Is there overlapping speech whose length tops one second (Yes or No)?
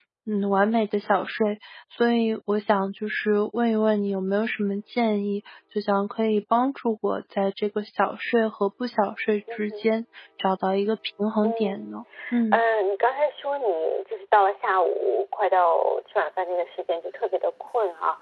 No